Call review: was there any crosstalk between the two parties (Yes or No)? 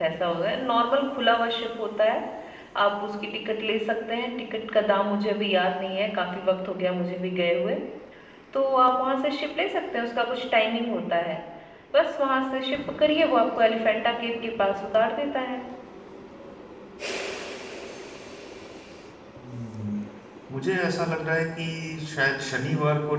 No